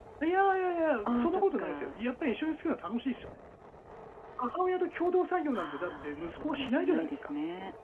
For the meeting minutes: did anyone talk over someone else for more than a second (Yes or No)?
Yes